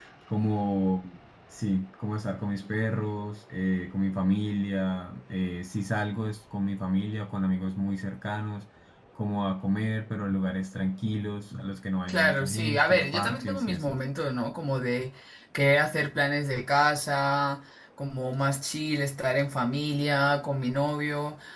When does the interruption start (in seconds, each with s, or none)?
12.1 s